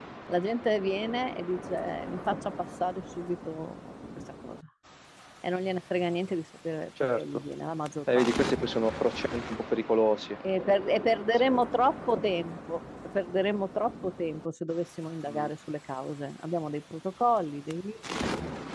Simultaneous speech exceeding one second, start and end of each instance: none

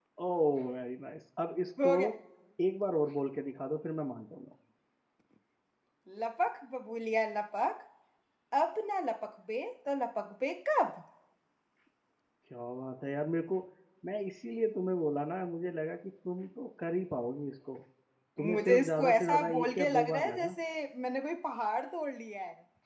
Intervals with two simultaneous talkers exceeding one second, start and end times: 18.4-20.5

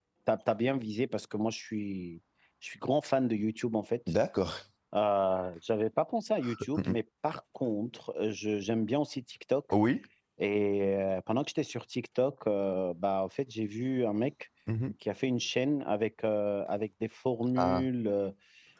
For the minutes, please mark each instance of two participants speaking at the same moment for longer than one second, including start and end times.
none

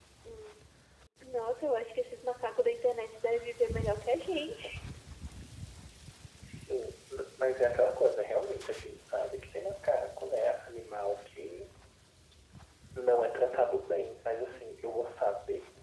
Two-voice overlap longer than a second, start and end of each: none

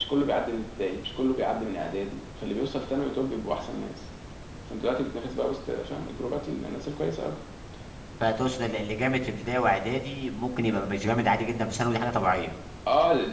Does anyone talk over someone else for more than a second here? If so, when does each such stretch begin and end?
none

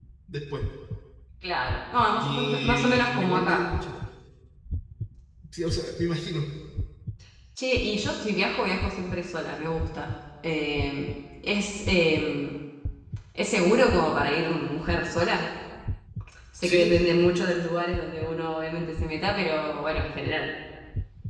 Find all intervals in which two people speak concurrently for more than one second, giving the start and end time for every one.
2.2-3.7

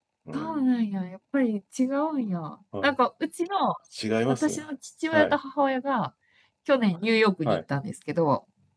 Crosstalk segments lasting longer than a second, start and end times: none

